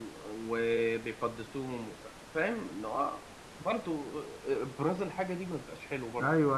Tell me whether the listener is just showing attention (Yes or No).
No